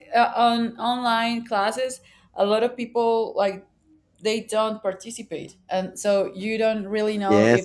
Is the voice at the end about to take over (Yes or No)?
Yes